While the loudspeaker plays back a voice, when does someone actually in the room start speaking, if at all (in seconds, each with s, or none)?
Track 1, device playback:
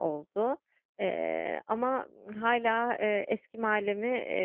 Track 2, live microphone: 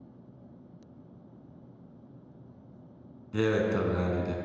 3.3 s